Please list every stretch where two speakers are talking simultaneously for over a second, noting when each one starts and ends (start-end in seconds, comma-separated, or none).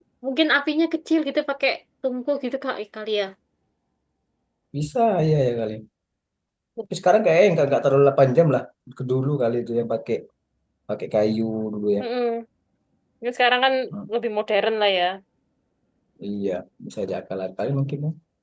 none